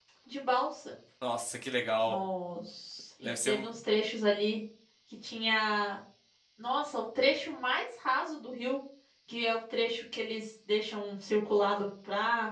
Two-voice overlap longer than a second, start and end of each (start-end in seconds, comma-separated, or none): none